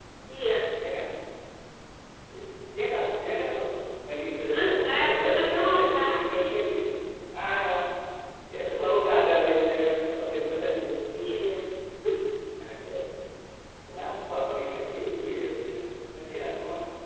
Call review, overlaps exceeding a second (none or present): present